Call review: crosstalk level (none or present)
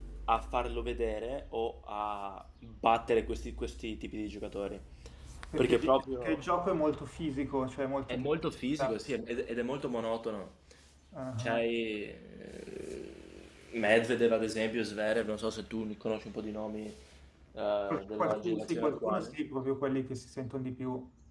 present